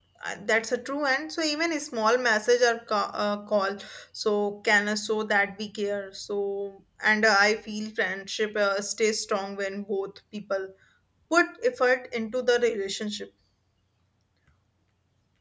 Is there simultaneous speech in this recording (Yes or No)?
No